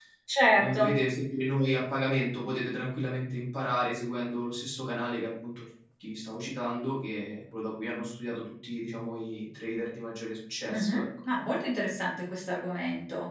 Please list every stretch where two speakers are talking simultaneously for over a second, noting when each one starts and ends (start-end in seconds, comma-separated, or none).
none